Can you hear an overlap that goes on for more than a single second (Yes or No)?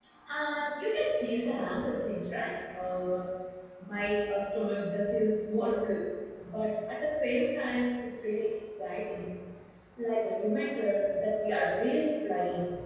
No